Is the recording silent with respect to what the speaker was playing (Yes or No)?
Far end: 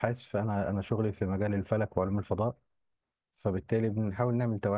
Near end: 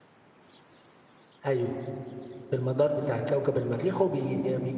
Yes